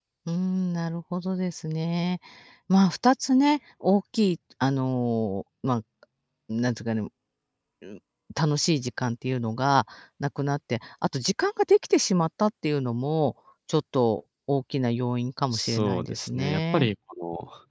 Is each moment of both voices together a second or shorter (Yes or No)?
No